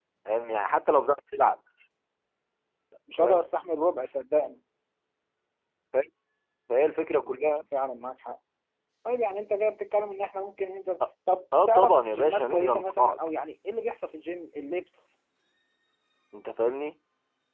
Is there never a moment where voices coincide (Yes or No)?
No